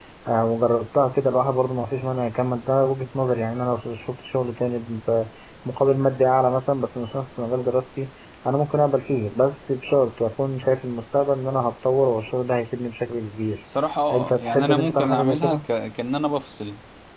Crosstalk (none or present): present